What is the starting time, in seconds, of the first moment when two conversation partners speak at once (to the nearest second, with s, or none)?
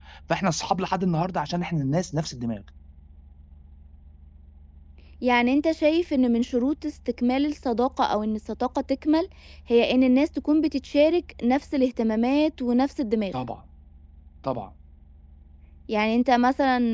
none